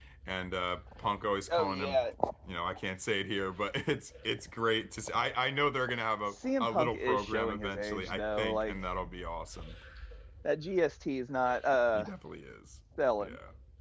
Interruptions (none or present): present